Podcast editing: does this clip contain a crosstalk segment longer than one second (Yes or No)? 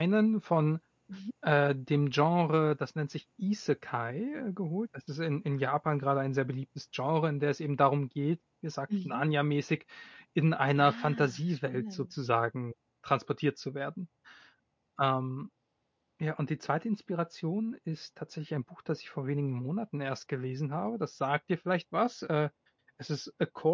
Yes